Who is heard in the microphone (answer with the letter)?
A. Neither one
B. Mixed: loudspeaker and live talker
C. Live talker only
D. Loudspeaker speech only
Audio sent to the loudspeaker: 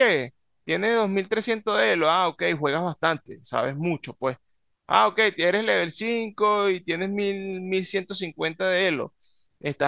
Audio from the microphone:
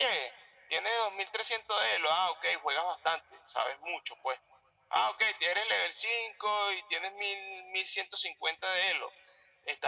D